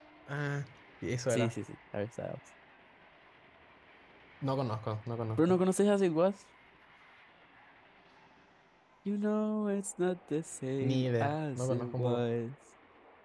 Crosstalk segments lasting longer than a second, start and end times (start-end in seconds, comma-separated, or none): 10.8-12.2